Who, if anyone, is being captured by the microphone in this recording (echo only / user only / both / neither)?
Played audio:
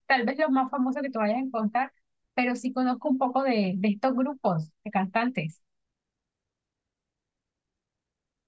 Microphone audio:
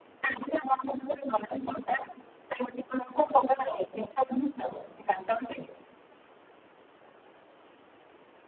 echo only